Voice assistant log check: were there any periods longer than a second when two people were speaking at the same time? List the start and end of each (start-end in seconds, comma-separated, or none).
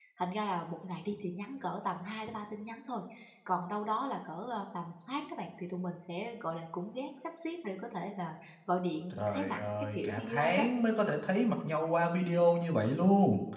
9.2-10.6